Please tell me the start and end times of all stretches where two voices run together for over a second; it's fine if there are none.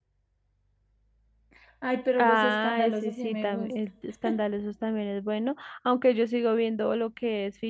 2.2-3.7

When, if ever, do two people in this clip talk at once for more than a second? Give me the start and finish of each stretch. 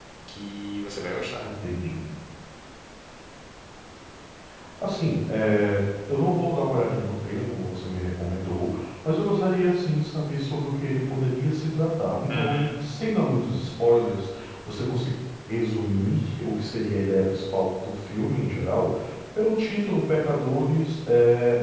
none

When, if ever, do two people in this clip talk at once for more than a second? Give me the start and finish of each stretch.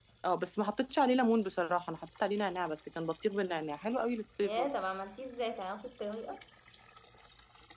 none

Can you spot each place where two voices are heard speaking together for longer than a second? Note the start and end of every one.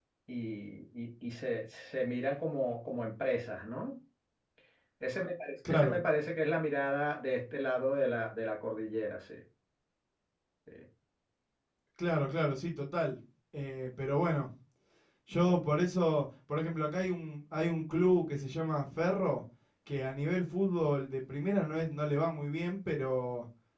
none

